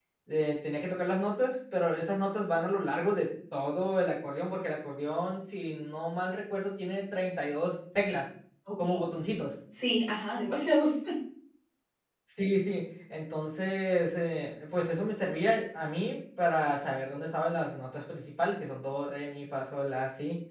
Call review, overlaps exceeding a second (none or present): none